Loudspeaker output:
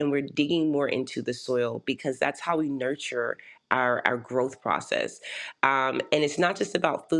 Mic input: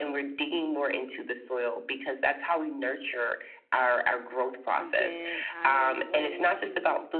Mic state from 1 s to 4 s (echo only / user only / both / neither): echo only